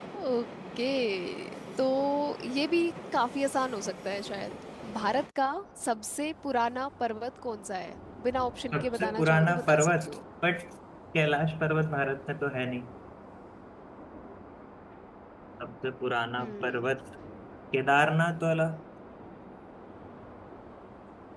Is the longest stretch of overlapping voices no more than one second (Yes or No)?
No